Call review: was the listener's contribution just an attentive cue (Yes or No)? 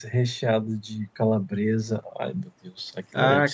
No